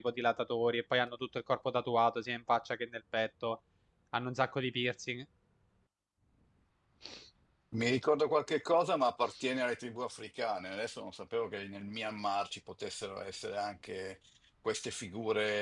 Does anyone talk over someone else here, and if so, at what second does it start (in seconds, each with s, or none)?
none